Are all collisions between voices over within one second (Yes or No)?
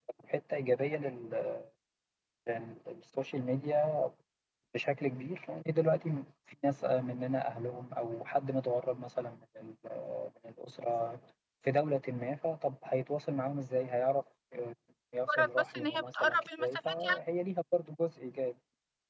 No